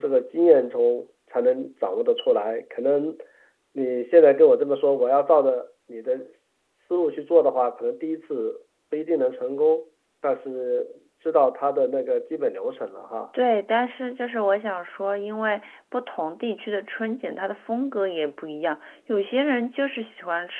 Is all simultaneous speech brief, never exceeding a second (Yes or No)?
Yes